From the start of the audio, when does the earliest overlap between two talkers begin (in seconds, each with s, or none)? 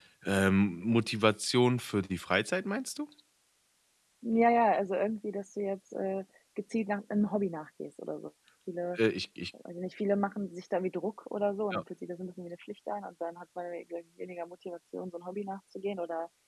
none